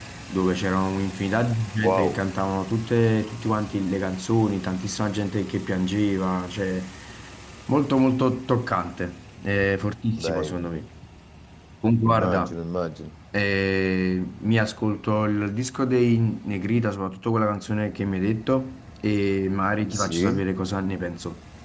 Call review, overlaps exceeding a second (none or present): none